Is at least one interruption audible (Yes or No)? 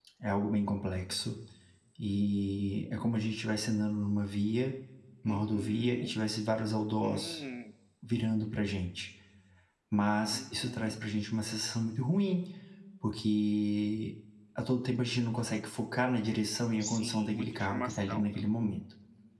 Yes